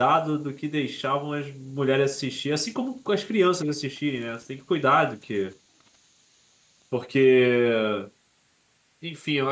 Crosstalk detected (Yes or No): No